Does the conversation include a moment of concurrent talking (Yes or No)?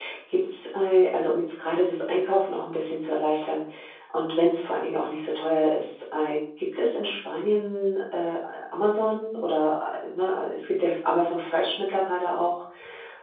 No